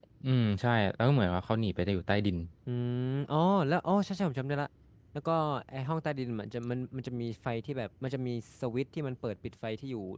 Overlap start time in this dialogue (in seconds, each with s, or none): none